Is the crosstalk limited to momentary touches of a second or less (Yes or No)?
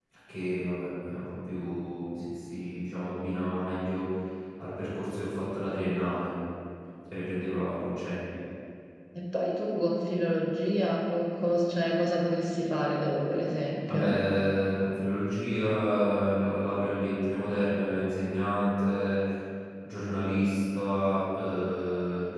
Yes